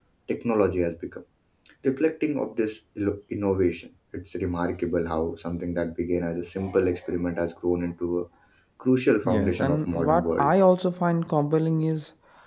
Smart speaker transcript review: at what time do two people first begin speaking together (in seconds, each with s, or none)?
9.2 s